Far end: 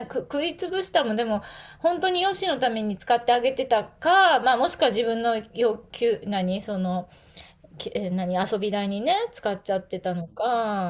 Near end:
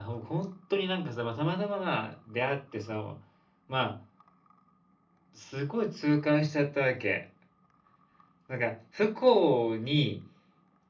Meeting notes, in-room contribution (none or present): present